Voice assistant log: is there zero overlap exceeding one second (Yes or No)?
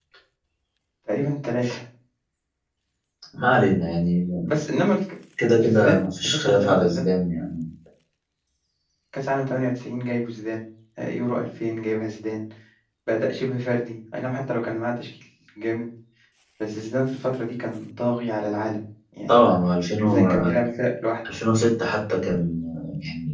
No